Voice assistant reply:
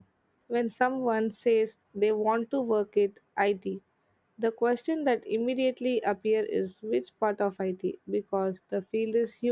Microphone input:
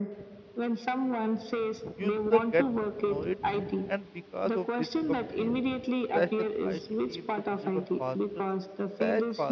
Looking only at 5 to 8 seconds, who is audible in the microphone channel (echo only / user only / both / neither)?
both